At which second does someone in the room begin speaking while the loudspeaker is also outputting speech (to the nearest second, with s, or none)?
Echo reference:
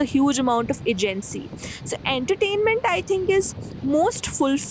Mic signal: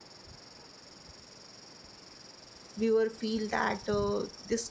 3 s